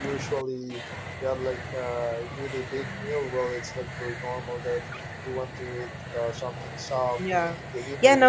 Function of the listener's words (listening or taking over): taking over